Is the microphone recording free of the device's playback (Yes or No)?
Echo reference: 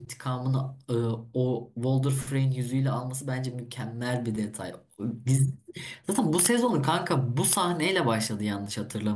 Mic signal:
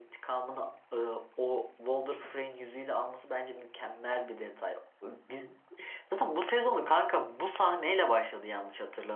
No